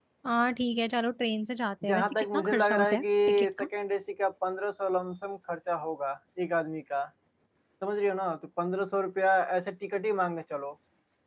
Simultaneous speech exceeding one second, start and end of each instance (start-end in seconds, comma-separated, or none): 1.9-3.7